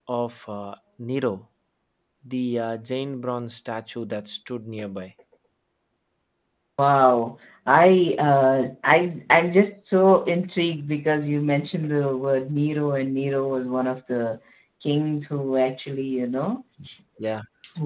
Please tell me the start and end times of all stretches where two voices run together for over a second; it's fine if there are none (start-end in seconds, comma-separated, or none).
none